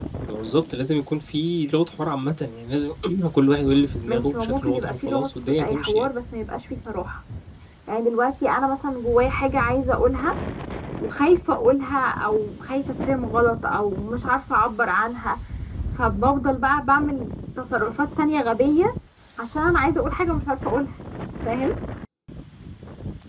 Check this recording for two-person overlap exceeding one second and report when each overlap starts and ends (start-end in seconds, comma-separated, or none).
4.1-6.1